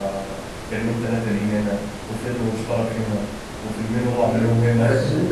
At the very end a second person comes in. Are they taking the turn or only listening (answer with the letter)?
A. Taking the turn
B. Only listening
A